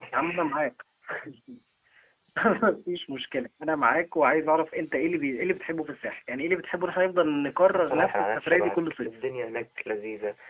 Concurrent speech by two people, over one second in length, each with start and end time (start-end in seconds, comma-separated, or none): 7.7-9.2